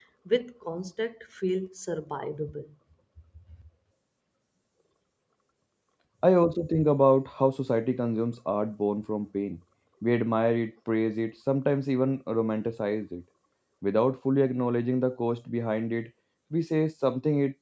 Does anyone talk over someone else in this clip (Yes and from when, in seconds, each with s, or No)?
No